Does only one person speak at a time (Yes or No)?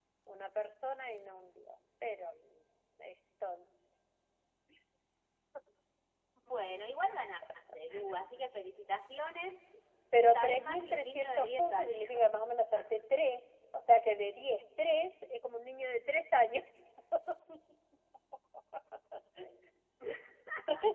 No